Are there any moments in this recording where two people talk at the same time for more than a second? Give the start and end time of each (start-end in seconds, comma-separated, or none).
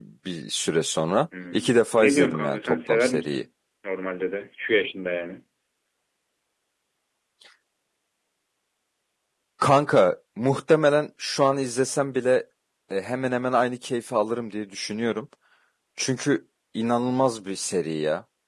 1.5-3.4